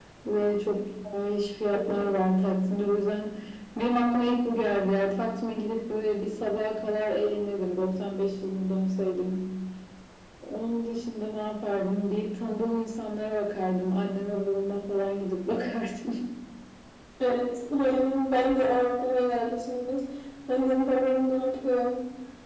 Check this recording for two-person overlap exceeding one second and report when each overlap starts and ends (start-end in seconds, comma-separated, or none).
none